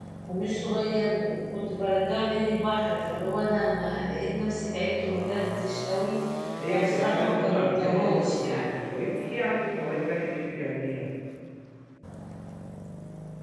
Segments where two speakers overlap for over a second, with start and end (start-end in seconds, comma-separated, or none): 6.7-8.7